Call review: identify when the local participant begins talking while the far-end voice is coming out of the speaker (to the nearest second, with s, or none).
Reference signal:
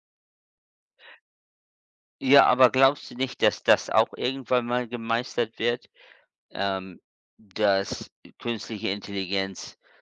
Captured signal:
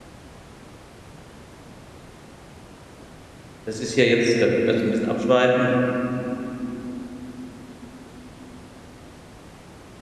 4 s